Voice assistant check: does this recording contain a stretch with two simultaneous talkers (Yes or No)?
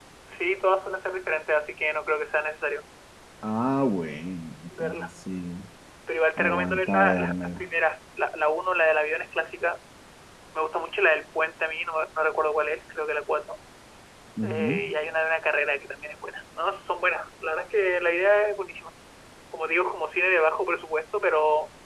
Yes